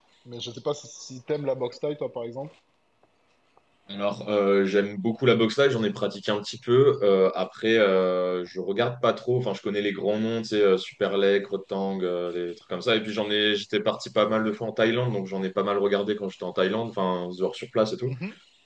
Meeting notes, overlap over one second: none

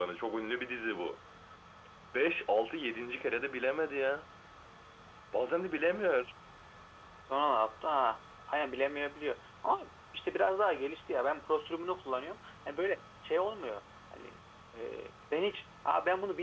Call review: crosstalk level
none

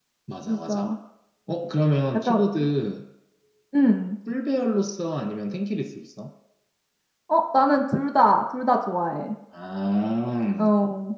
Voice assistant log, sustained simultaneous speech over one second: none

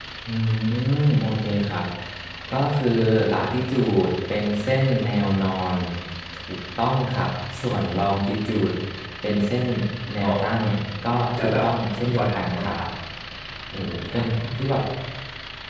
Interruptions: present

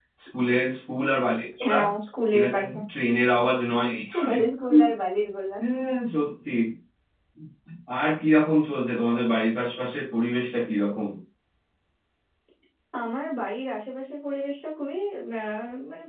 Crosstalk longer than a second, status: none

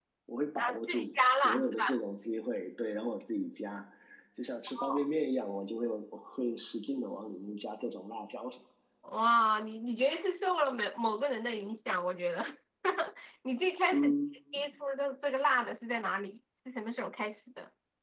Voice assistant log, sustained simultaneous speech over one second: present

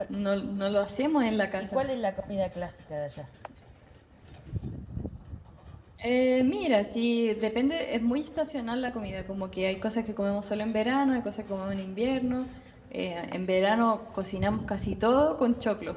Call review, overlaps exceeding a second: none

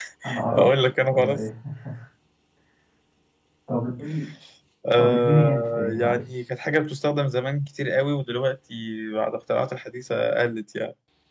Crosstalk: present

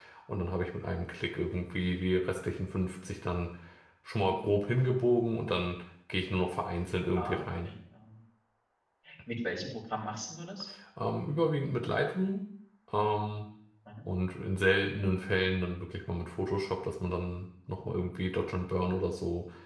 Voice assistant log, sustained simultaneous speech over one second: none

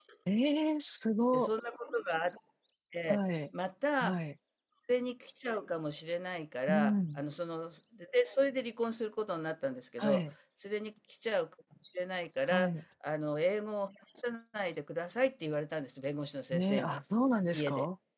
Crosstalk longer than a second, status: none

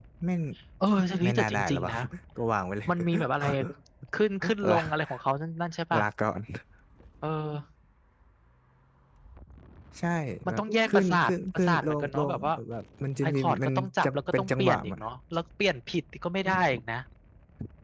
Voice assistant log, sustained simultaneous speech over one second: present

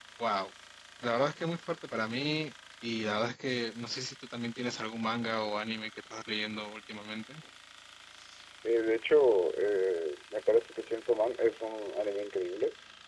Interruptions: none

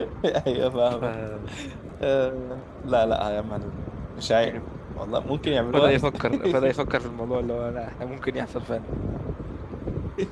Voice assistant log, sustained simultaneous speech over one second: none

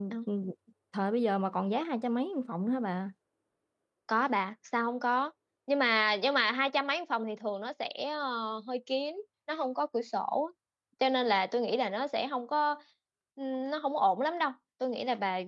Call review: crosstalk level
none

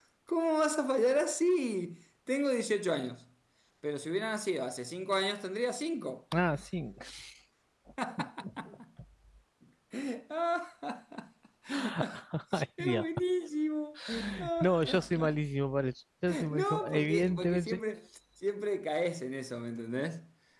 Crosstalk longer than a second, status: present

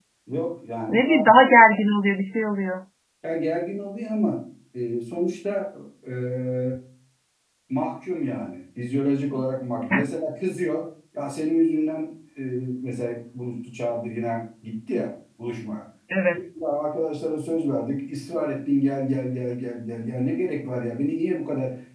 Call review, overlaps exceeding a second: none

